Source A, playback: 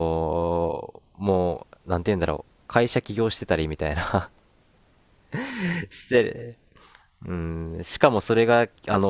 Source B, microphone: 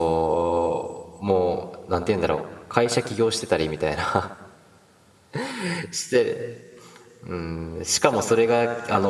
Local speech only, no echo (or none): none